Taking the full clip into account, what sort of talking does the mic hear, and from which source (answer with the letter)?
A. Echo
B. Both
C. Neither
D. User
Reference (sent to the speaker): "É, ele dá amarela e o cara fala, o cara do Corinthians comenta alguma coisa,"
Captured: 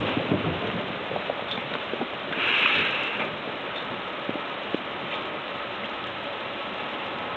C